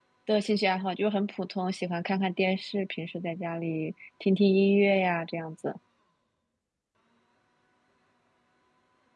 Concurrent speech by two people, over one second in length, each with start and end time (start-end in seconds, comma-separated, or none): none